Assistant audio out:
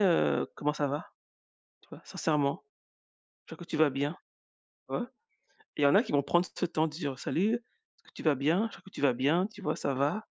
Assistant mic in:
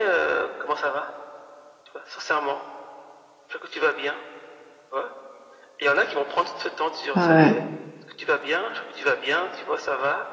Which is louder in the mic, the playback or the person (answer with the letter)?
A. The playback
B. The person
B